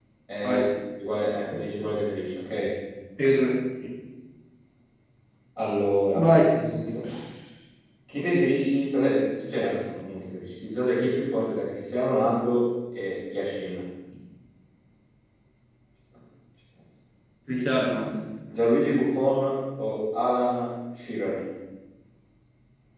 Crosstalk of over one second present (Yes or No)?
No